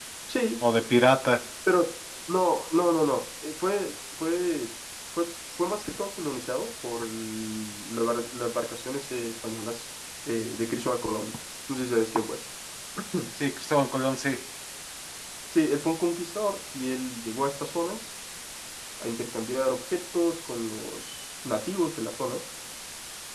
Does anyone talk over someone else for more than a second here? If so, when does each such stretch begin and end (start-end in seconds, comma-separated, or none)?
none